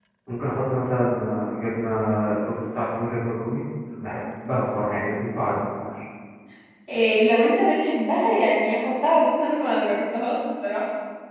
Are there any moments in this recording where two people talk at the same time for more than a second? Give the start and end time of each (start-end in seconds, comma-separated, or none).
none